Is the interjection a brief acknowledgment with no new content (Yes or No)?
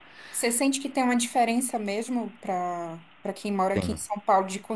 Yes